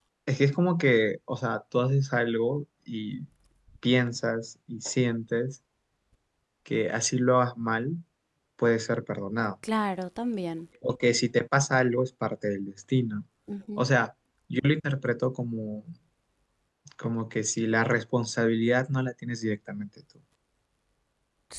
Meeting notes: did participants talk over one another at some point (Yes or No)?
No